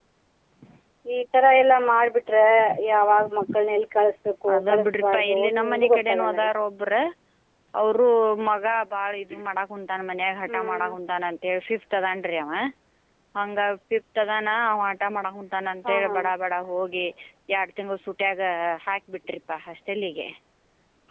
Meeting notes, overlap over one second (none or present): present